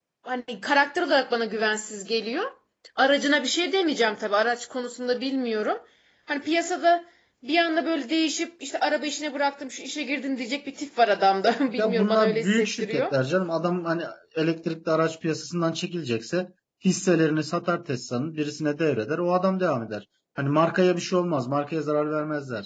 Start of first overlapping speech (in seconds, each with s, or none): 11.7 s